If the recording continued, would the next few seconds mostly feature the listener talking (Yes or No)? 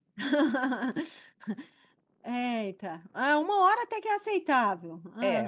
Yes